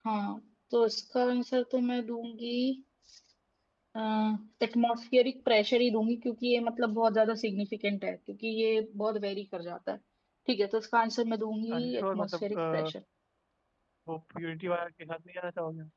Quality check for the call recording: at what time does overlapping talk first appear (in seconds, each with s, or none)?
11.7 s